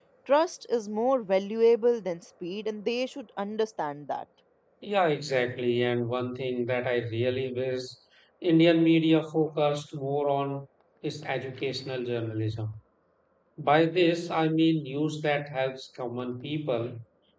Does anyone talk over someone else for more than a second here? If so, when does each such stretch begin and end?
none

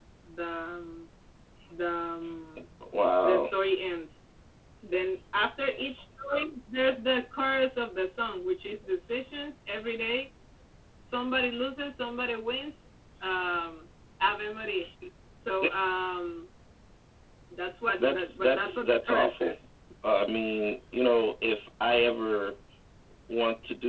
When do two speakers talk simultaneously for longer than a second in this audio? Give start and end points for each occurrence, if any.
18.0-19.6

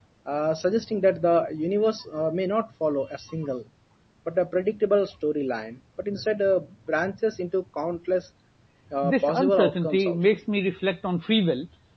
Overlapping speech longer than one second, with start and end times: 9.0-10.4

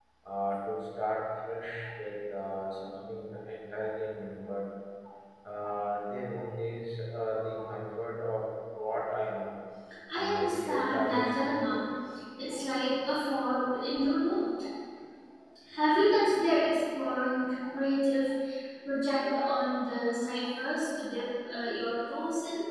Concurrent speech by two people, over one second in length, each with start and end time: 10.1-11.8

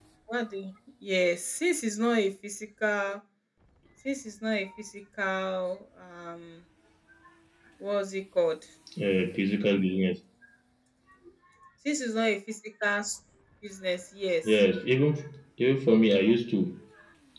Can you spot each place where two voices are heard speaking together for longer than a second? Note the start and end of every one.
none

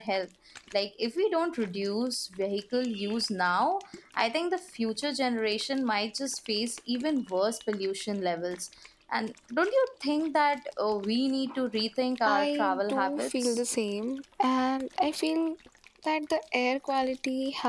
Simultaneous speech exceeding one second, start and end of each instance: 12.3-13.6

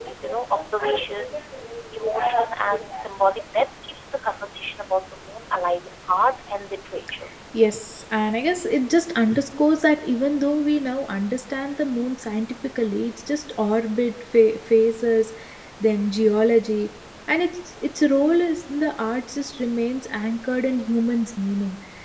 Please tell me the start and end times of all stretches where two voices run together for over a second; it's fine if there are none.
none

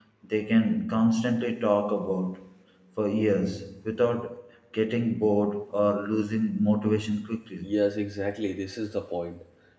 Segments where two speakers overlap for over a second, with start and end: none

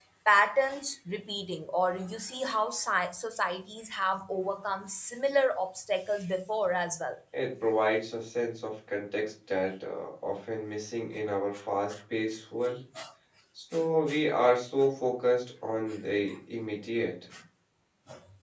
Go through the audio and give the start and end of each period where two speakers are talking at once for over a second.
none

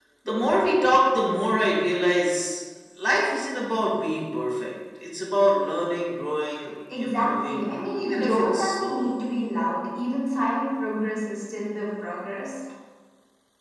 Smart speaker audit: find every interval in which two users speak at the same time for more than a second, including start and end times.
7.0-9.1

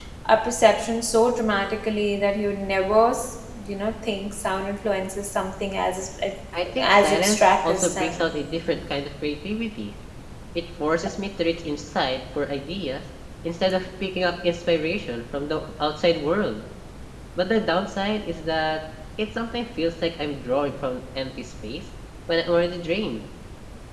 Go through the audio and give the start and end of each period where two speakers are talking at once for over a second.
6.8-8.3

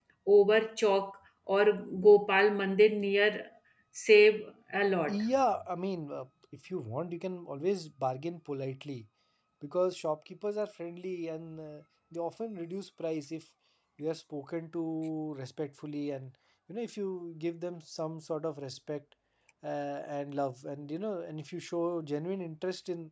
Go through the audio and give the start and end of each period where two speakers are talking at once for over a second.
none

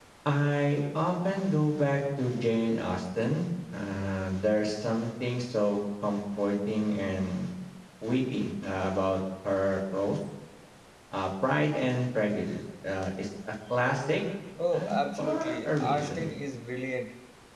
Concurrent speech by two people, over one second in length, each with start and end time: 14.7-16.3

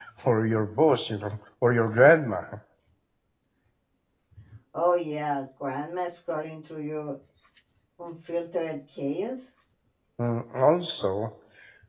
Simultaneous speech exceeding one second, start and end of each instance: none

